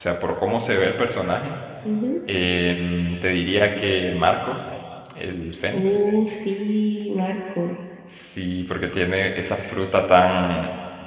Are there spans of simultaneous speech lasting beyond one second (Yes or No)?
No